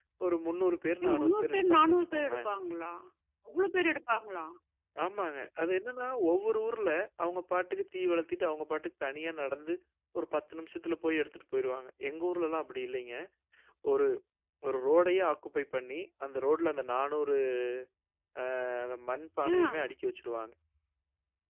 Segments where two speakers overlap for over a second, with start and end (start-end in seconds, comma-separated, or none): 1.0-2.5